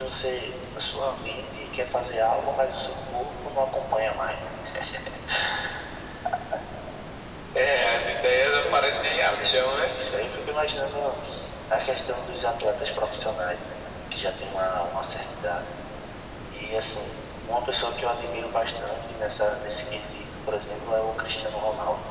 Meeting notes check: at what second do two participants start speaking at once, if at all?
8.6 s

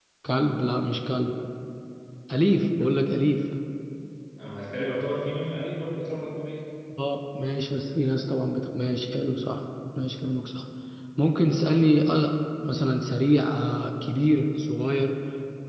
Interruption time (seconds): none

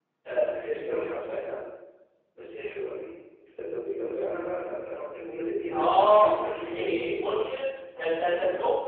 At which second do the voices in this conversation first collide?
5.7 s

